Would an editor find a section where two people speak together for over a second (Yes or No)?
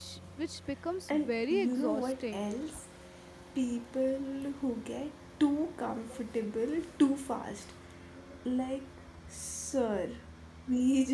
Yes